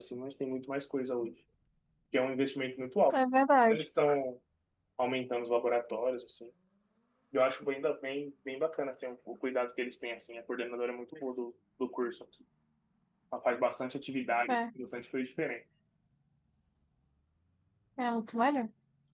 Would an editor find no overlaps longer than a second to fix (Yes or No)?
Yes